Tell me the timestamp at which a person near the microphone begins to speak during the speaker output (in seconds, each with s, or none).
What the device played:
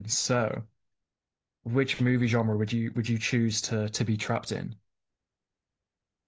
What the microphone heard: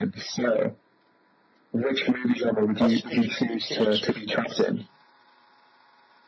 2.8 s